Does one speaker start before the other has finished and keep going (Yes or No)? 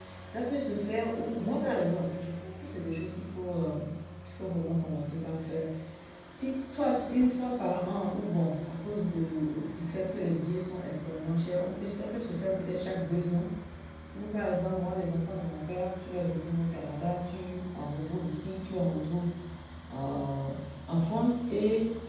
No